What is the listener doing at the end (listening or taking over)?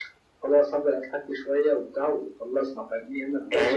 taking over